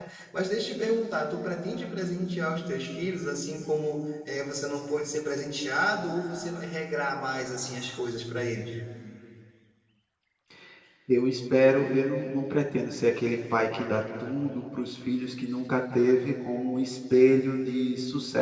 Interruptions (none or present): none